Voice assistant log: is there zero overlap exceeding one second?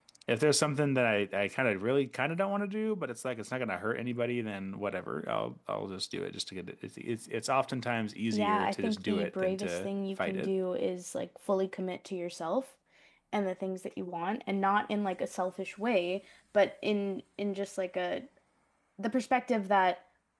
No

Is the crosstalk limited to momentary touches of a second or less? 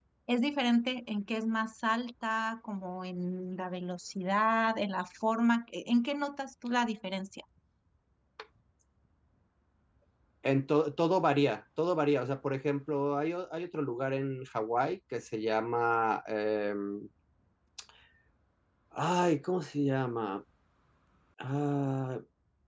Yes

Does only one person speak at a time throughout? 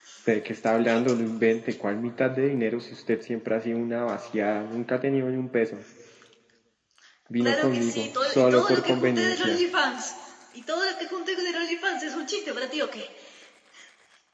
No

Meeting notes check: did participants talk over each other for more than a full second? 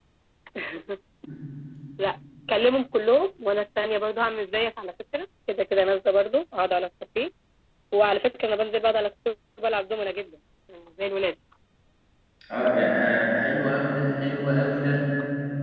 No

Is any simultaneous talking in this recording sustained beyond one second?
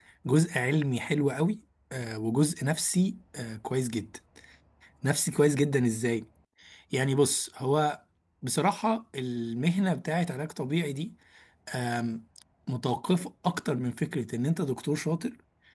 No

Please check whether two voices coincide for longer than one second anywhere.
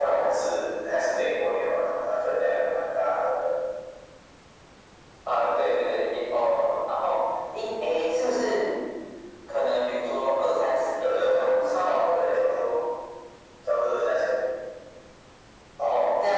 Yes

